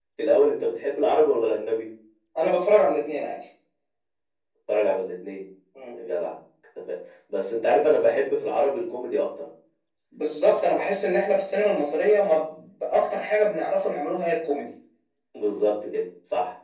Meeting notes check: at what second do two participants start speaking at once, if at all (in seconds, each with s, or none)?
none